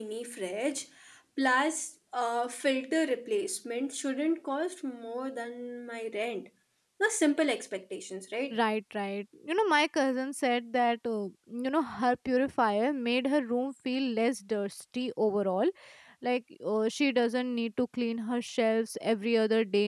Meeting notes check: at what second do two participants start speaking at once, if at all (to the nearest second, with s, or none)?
none